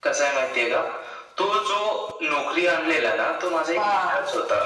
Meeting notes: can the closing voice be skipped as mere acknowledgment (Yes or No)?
Yes